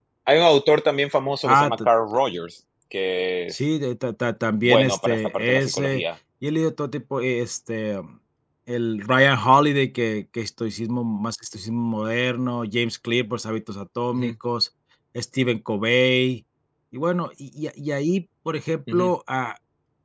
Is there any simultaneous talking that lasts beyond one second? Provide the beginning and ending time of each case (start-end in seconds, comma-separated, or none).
4.6-6.0